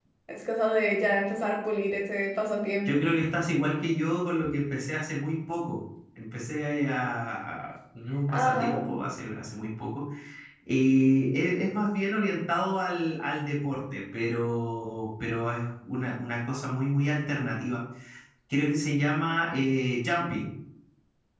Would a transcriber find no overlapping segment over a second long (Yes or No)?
Yes